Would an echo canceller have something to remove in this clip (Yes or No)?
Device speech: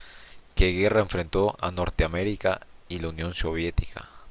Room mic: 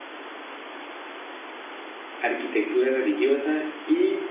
No